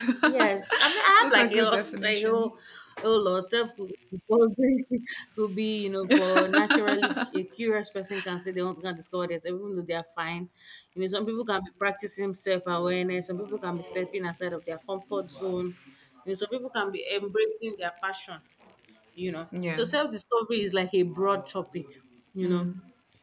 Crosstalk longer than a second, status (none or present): present